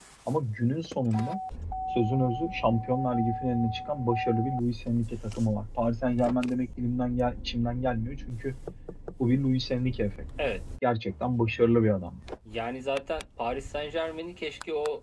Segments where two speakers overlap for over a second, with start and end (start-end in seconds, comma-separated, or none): none